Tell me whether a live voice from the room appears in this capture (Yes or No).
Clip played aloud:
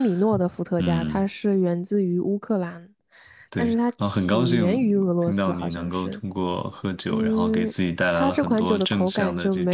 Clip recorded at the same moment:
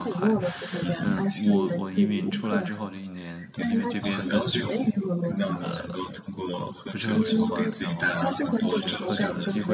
Yes